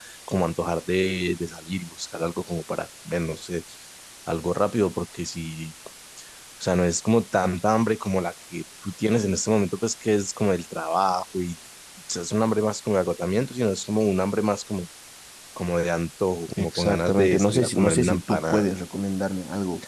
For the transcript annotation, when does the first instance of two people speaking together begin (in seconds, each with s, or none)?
16.5 s